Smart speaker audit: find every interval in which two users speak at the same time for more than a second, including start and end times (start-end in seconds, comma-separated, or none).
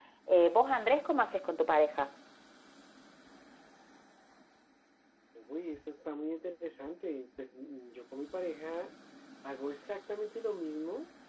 none